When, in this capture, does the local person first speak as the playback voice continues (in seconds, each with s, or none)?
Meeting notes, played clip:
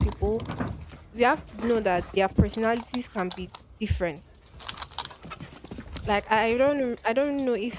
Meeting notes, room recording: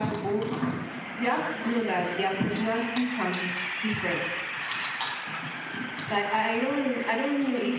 none